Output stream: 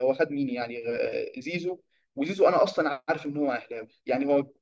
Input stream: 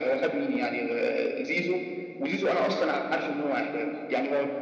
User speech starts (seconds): none

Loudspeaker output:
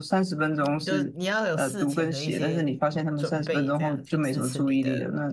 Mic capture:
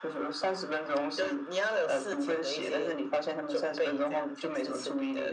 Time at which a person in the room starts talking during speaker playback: none

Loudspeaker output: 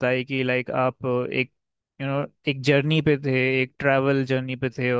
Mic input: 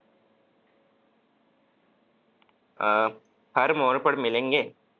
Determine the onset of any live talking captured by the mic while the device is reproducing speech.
3 s

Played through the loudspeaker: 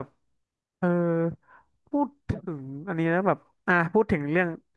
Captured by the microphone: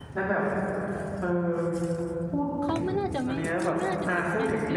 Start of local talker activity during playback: 3 s

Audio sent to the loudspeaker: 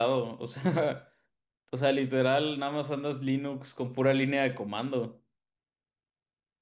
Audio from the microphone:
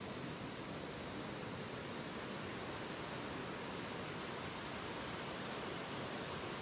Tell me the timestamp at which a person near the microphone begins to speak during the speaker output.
none

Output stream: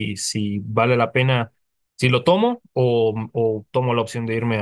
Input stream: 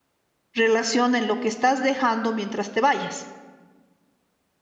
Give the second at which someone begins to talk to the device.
1 s

